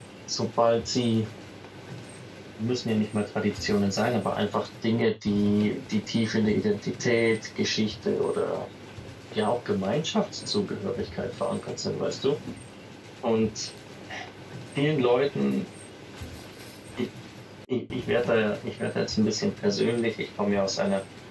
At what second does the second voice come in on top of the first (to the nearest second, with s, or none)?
none